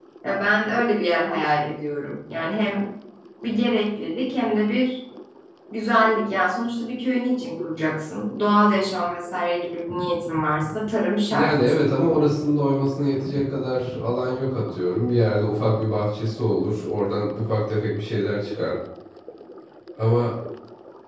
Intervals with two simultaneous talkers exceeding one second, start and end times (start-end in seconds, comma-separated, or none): none